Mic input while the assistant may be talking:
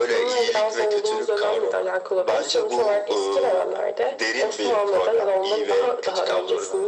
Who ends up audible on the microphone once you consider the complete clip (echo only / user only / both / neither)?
echo only